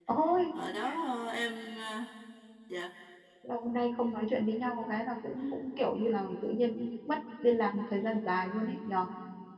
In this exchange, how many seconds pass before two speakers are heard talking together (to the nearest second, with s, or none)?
none